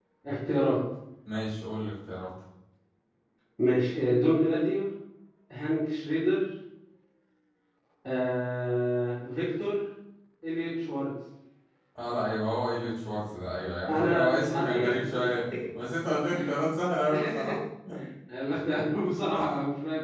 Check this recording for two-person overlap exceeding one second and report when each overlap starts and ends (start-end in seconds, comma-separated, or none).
13.9-15.3